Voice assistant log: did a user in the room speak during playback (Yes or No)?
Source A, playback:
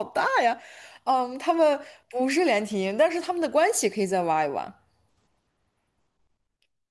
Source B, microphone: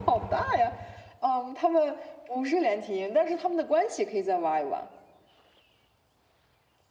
No